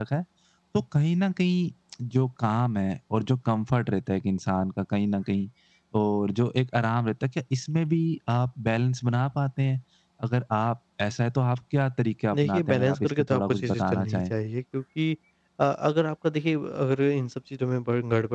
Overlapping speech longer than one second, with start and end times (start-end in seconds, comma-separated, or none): 12.3-14.3